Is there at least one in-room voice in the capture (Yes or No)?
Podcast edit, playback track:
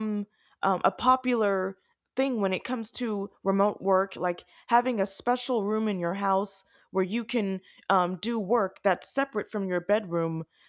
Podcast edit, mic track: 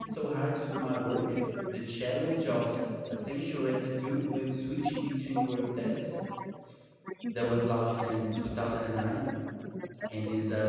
Yes